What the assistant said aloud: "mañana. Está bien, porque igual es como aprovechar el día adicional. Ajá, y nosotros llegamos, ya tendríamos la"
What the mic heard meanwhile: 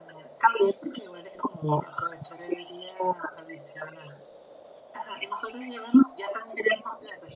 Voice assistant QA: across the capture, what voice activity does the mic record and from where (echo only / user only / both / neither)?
echo only